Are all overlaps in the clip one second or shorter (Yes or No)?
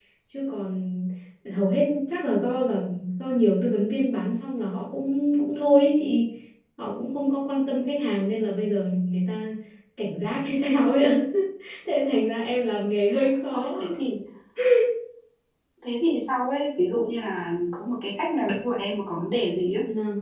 Yes